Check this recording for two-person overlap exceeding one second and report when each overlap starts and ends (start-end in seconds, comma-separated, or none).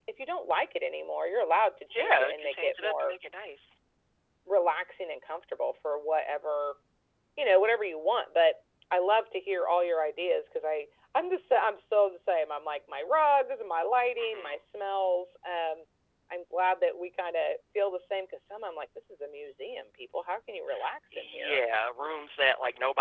1.9-3.1